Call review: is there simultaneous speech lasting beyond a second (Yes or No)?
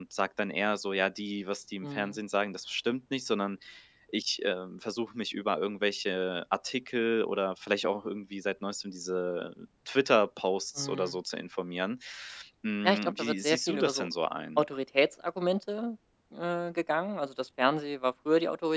Yes